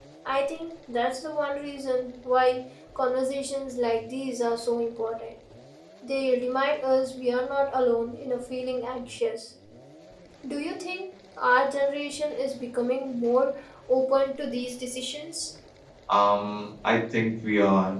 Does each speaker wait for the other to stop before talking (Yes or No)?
Yes